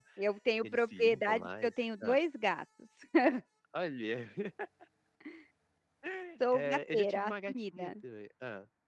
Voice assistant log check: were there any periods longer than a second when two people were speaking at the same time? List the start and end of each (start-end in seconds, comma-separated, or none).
0.6-2.2, 6.5-7.9